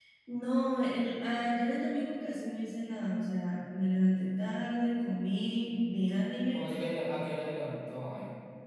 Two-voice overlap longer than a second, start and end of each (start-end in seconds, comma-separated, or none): none